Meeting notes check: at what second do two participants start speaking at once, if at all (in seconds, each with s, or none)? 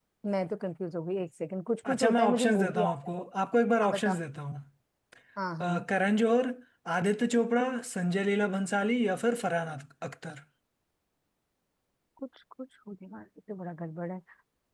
1.9 s